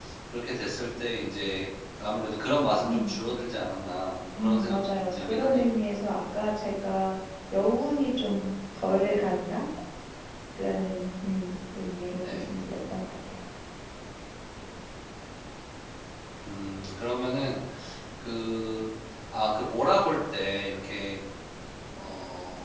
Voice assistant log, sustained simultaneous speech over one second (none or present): present